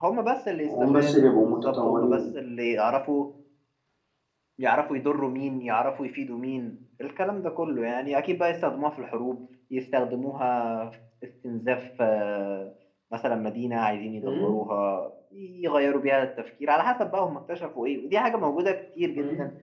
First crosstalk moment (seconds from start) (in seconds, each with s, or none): 0.7 s